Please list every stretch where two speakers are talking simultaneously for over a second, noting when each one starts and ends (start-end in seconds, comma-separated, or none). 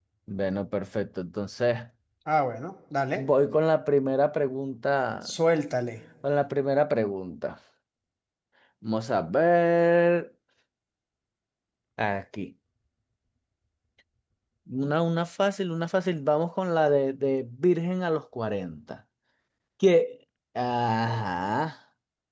none